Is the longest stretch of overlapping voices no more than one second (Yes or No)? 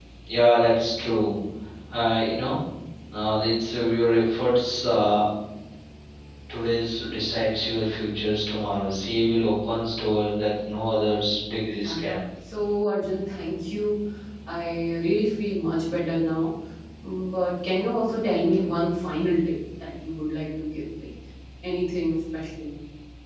Yes